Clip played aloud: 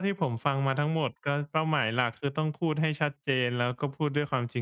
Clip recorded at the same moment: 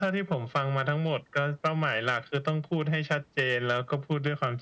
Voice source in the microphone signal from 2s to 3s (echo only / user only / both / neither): echo only